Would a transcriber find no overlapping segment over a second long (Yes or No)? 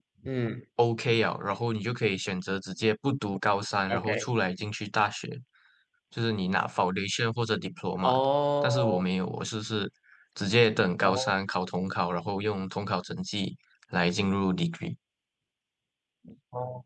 Yes